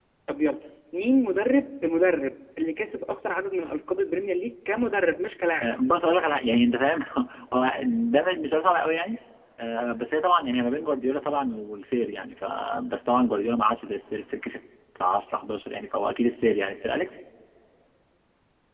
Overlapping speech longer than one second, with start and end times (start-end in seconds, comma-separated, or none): none